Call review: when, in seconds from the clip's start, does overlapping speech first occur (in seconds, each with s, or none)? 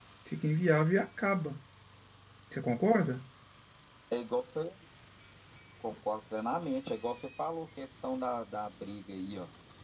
none